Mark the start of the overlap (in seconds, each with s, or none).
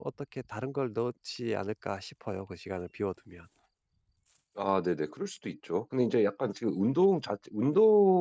none